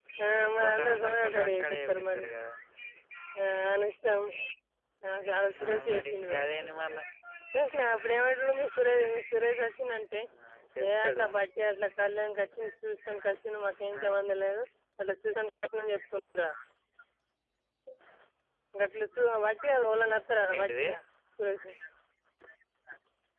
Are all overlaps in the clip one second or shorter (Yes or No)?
No